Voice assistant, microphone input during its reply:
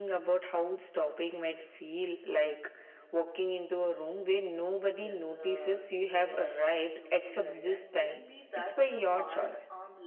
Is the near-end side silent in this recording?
No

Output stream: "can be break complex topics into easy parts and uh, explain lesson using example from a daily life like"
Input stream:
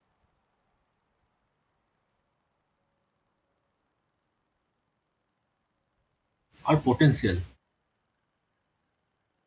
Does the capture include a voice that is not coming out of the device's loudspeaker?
Yes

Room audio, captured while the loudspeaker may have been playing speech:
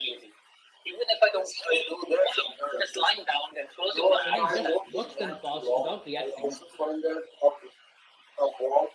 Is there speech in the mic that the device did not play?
Yes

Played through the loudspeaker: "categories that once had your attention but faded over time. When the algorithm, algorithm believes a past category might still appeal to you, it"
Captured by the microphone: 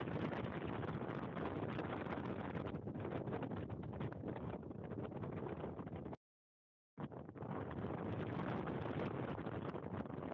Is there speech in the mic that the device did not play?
No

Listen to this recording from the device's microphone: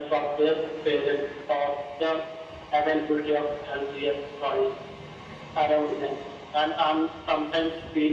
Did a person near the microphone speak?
No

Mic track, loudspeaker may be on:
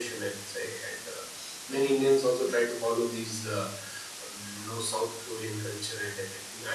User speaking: No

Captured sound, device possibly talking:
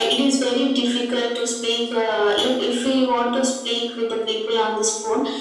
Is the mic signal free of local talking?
Yes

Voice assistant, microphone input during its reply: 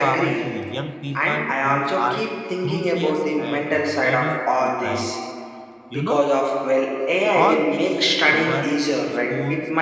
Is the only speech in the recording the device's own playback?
No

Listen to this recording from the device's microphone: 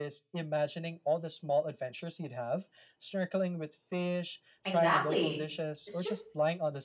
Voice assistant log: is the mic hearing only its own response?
No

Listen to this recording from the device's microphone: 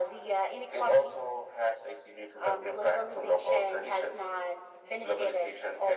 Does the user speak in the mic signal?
No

